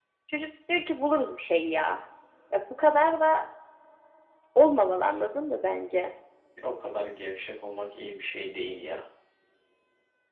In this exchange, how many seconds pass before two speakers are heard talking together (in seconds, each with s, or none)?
none